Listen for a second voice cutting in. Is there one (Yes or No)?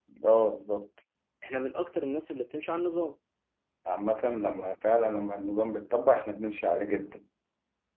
No